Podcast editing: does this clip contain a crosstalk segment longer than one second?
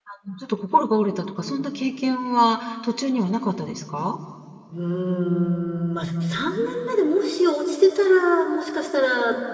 No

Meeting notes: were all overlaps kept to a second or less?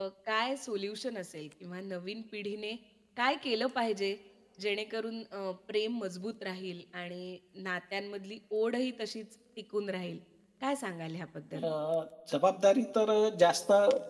Yes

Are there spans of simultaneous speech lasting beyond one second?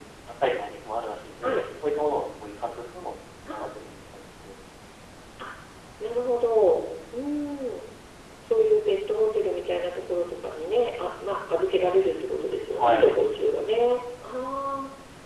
No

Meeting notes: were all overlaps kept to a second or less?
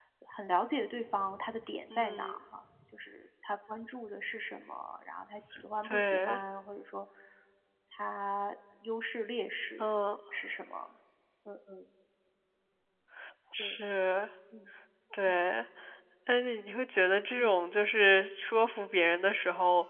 Yes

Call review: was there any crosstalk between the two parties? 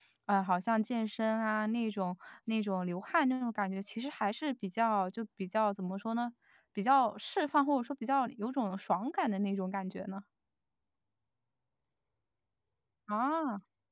No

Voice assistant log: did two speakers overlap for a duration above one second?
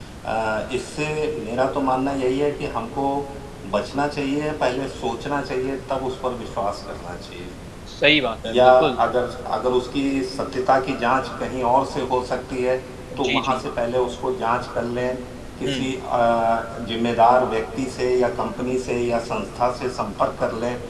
No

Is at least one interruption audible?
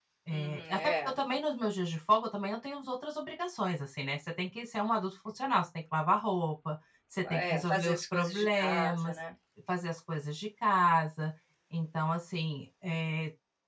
Yes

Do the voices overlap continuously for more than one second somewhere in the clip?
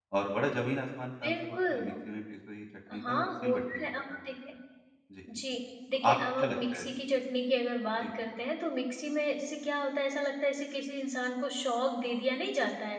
Yes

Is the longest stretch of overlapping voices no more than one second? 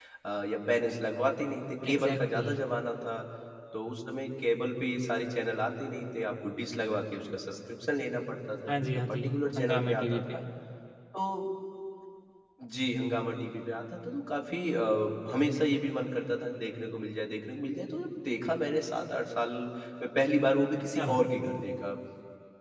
No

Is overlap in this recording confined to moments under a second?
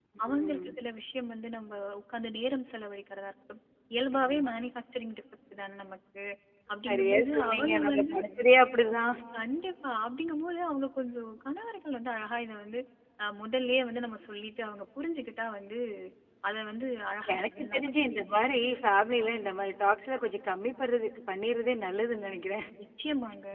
No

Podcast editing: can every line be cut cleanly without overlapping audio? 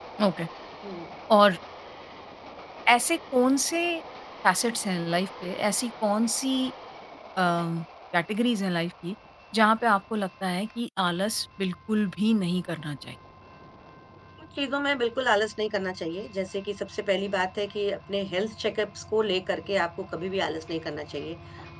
Yes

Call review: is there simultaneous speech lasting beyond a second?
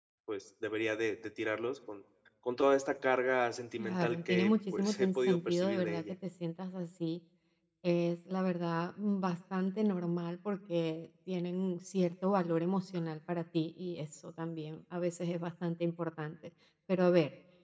Yes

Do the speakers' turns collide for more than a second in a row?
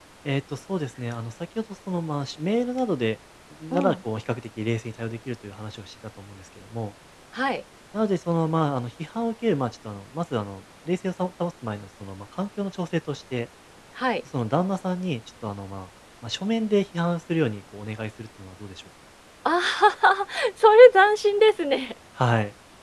No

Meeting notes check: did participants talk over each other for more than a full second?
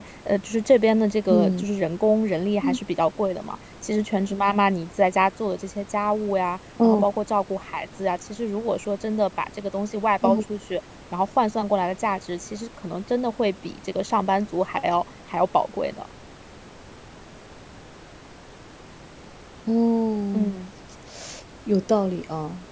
No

